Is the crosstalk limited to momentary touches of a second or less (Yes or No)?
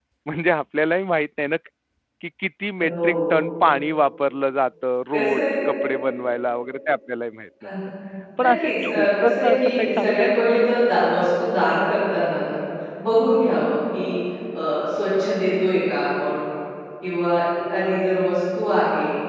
No